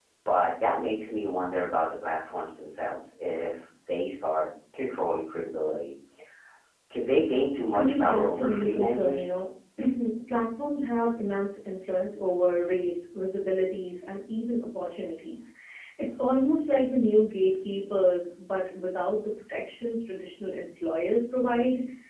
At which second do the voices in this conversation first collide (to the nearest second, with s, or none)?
8 s